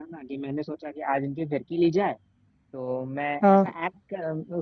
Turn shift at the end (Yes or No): No